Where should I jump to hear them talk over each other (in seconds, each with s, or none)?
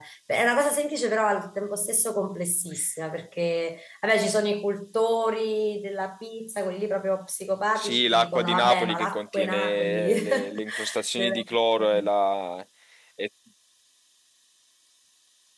7.8 s